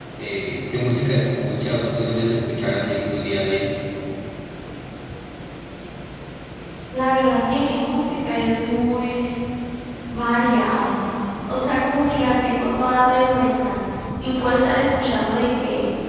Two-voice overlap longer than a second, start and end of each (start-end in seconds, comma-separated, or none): none